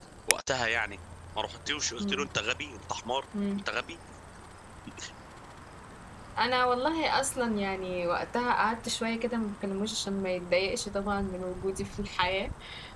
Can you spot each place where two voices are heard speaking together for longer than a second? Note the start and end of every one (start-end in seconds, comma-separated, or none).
none